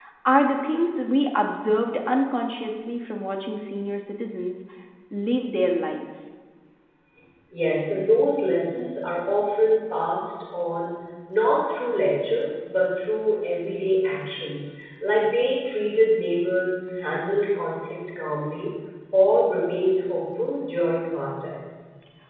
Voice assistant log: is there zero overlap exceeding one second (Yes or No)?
Yes